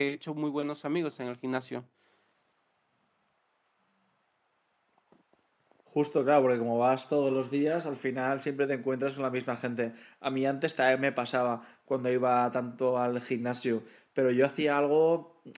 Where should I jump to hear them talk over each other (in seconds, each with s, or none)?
none